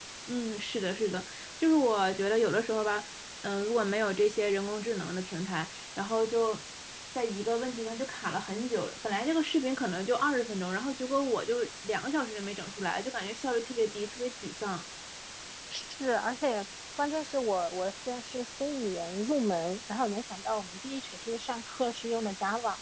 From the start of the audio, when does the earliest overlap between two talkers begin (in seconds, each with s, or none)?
none